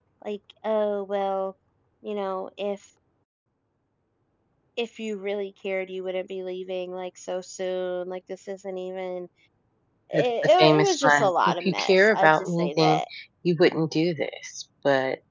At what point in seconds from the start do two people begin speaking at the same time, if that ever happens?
10.1 s

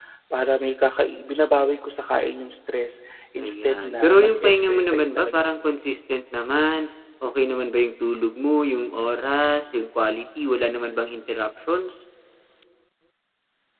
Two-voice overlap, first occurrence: 3.4 s

